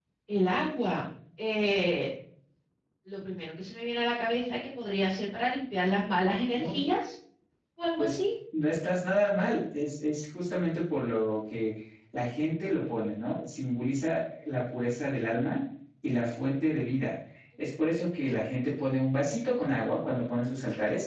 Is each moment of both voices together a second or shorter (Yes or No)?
Yes